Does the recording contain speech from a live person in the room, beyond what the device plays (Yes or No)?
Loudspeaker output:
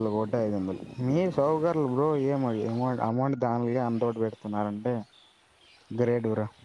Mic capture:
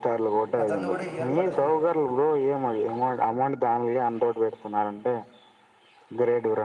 Yes